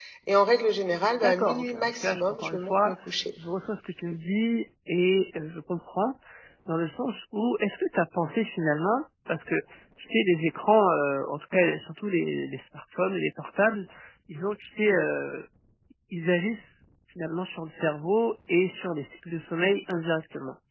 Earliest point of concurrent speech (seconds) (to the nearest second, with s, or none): 1 s